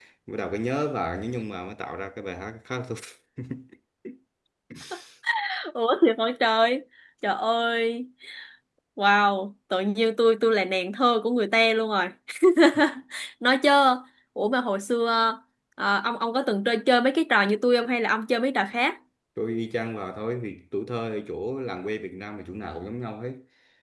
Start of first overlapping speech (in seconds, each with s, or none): none